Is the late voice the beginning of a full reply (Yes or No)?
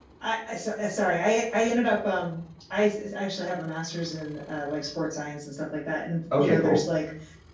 No